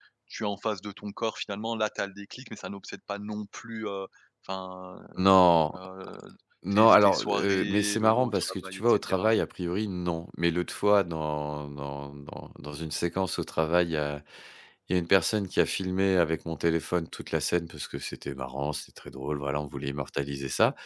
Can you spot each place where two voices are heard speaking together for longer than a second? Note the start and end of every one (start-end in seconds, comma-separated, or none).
6.7-9.3